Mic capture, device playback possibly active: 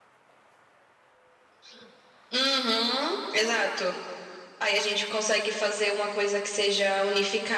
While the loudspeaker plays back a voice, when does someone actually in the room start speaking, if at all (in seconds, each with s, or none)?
none